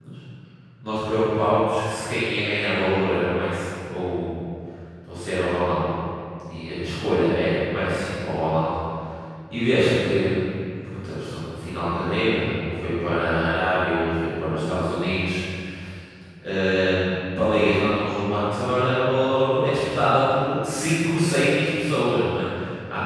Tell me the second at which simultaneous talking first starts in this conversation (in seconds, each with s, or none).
none